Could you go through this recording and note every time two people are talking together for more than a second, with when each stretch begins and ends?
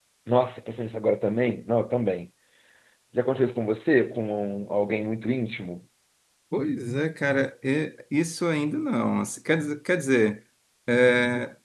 none

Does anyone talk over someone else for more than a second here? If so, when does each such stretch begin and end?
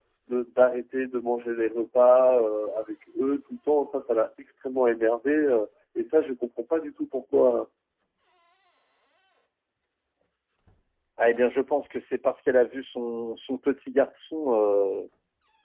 none

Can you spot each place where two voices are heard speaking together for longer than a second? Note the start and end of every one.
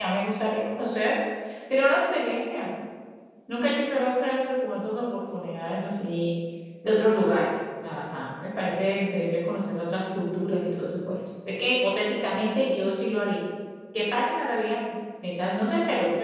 none

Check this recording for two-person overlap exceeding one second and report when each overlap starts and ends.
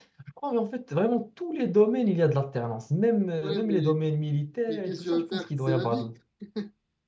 4.7-6.1

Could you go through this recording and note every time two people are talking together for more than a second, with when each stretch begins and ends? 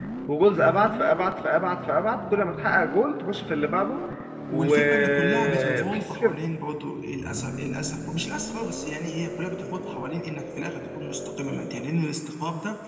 4.5-6.3

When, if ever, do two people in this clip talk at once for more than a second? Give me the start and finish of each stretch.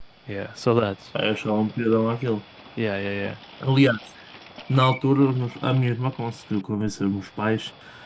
none

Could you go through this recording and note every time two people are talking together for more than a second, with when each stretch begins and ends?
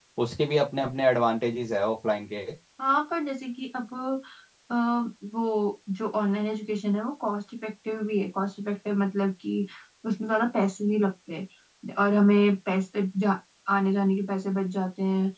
none

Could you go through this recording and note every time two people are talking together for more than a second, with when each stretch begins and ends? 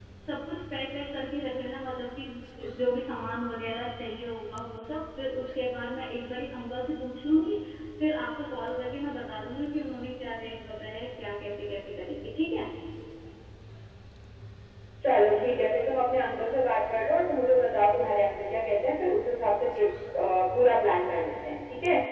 none

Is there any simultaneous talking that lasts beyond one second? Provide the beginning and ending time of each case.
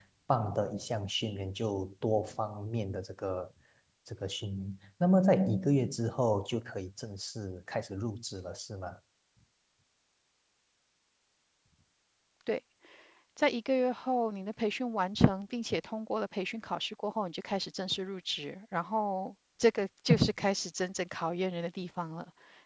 none

